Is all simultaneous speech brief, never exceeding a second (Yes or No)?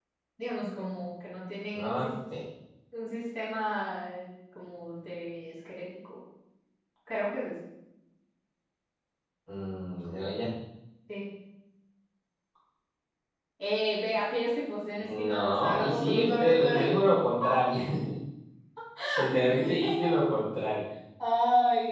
No